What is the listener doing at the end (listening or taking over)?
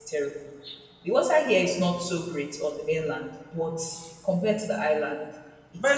taking over